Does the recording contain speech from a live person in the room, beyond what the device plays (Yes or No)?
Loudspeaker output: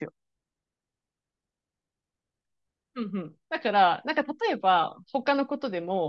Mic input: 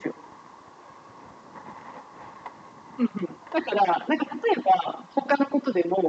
No